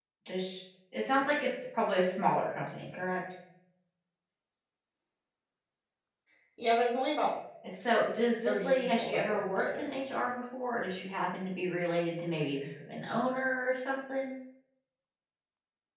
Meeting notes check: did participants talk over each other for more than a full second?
Yes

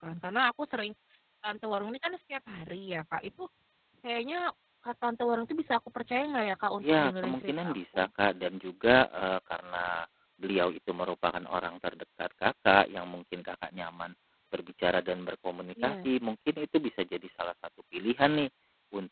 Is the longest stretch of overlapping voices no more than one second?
No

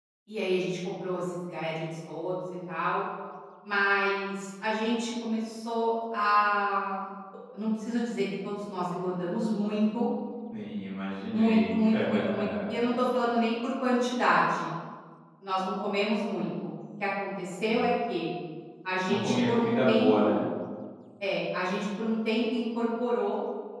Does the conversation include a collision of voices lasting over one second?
Yes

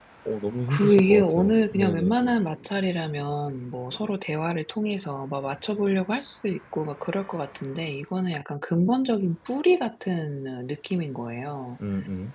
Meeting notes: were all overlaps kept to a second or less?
No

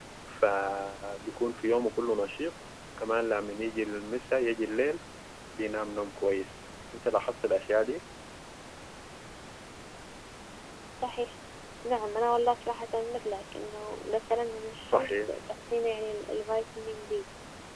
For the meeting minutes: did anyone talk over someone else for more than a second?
No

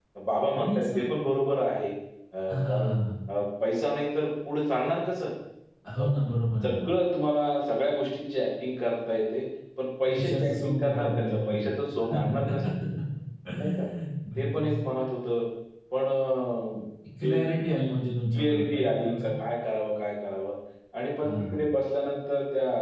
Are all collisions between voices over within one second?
No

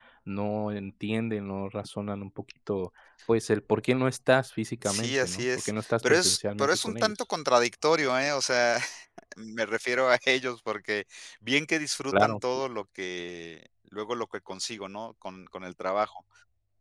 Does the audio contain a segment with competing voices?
Yes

